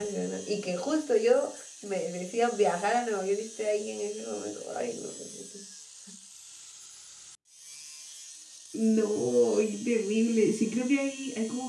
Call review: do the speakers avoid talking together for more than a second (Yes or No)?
Yes